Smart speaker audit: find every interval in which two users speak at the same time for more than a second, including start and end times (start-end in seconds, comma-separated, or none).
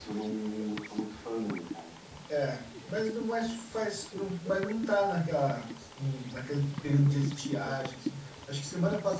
none